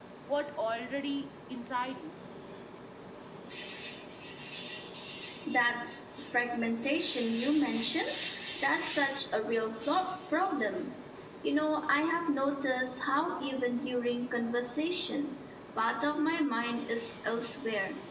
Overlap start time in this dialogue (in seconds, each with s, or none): none